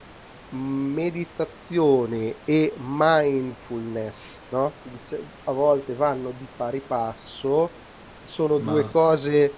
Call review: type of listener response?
listening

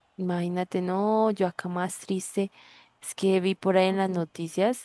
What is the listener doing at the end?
listening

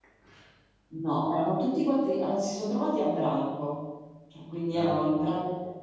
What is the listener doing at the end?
listening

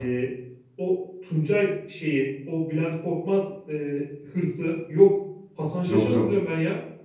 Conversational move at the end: listening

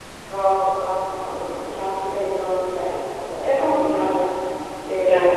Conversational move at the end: listening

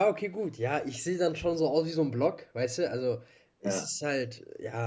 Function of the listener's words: listening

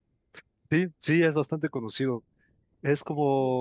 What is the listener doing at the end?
listening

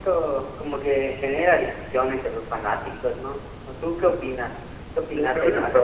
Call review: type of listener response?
taking over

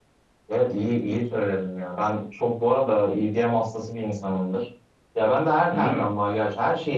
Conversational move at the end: listening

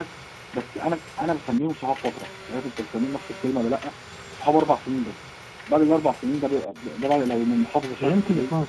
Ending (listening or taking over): taking over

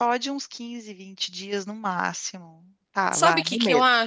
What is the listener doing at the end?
taking over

